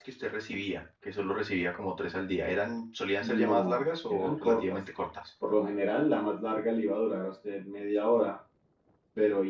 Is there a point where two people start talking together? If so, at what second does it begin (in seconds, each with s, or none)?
3.2 s